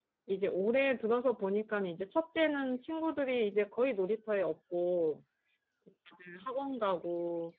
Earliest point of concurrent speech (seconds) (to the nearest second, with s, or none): none